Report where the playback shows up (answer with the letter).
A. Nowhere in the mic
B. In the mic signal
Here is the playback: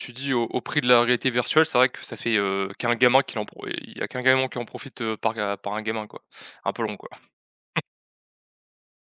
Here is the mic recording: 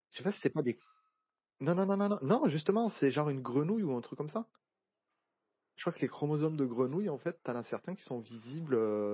A